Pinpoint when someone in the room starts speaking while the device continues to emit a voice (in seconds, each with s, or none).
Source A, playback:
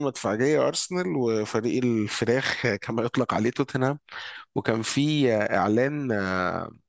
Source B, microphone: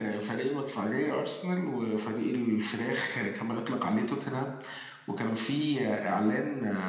none